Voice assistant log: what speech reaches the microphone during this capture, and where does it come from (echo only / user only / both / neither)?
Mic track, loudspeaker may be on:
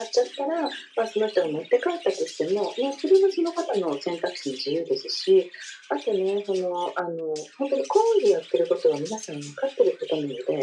echo only